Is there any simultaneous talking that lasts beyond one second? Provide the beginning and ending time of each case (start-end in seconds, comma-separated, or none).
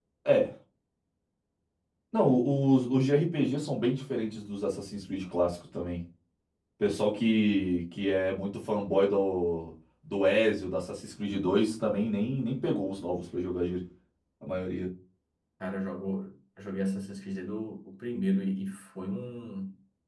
none